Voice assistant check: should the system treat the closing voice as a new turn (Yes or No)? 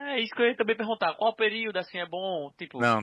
No